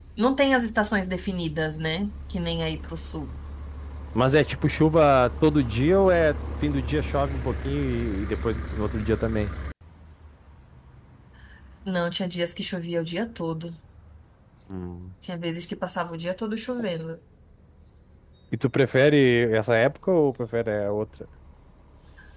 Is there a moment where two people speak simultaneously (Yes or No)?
No